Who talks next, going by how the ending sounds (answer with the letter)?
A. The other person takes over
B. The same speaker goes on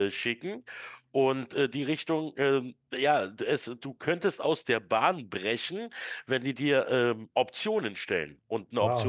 A